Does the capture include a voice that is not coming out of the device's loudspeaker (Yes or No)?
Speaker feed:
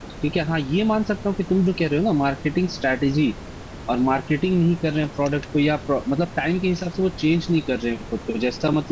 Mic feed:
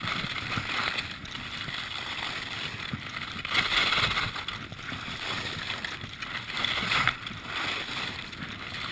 No